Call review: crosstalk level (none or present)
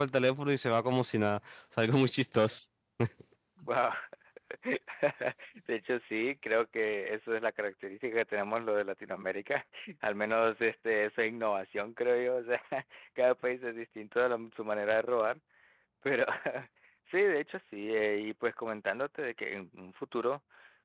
none